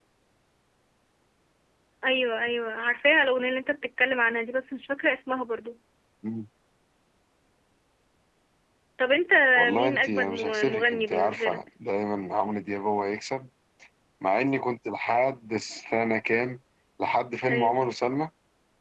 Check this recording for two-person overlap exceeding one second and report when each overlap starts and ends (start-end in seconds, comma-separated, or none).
9.7-11.6